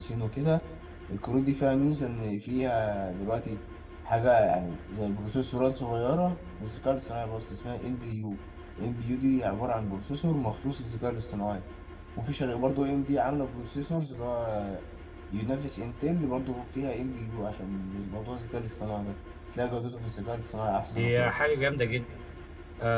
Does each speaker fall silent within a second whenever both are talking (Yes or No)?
Yes